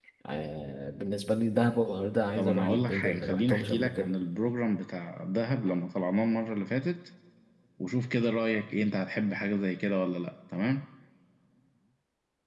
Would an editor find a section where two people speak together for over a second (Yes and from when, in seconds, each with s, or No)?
Yes, from 2.4 s